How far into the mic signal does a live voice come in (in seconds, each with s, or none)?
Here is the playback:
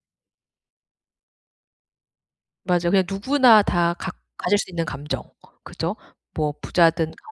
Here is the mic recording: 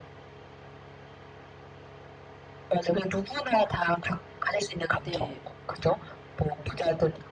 5.0 s